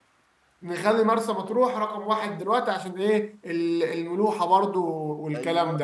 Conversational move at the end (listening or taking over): taking over